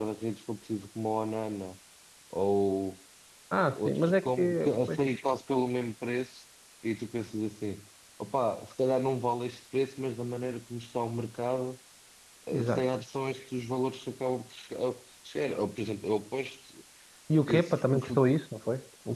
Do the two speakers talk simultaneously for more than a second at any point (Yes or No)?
Yes